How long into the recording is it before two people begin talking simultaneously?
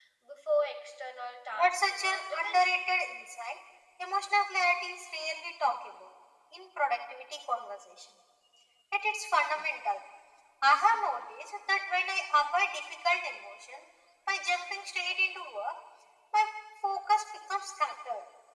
1 s

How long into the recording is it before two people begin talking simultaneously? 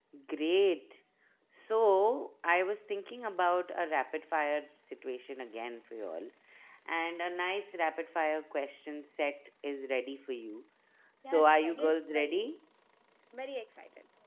11 s

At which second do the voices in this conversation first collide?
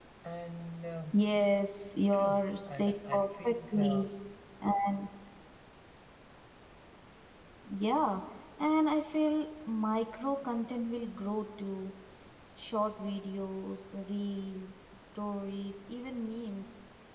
2 s

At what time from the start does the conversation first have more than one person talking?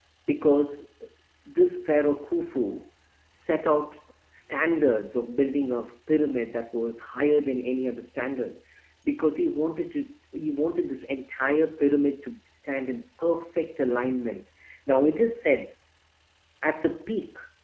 none

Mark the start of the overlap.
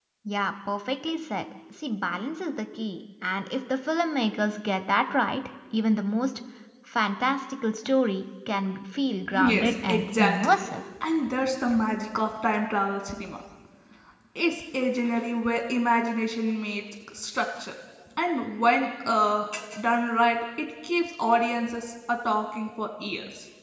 9 s

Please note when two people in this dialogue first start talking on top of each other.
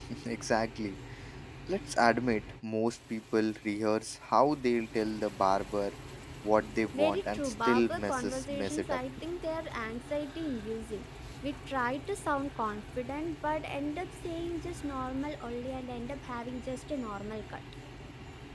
7 s

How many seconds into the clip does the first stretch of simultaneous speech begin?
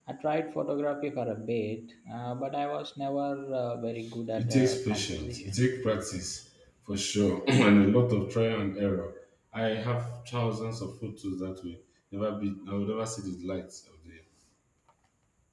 4 s

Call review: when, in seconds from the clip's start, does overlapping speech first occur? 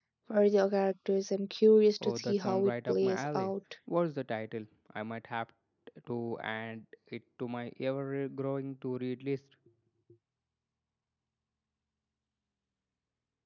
2 s

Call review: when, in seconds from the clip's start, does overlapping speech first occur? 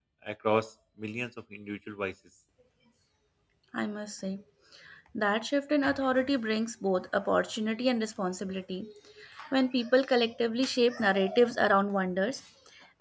none

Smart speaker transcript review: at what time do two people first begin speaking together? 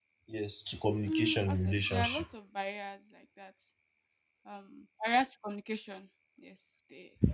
1 s

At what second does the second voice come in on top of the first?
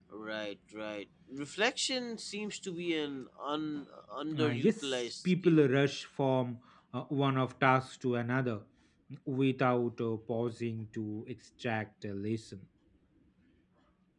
4 s

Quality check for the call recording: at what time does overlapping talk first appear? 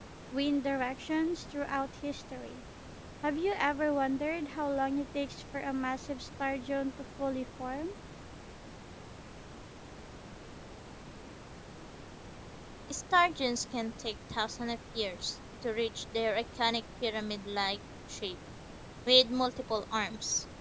none

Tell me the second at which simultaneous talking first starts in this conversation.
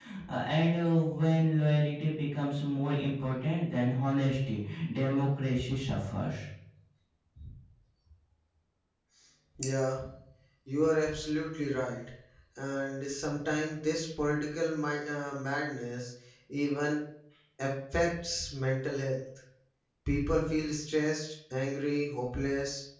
none

